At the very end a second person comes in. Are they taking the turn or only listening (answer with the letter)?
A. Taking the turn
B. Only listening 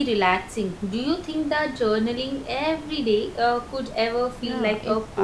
A